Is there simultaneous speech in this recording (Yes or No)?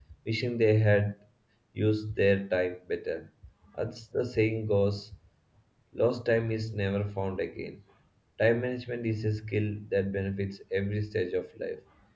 No